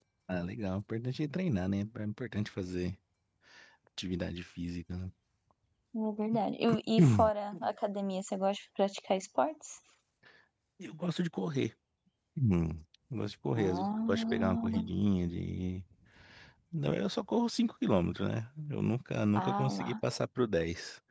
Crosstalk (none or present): present